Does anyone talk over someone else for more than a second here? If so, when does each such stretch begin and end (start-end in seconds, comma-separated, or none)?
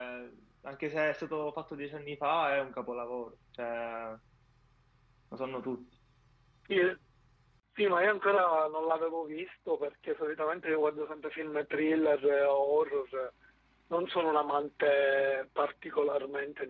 none